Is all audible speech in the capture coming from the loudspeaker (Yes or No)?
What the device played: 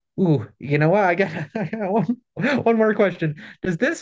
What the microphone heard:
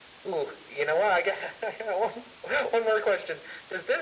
Yes